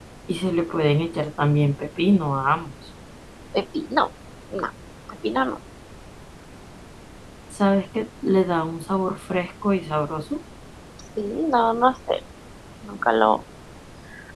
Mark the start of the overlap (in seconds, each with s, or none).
none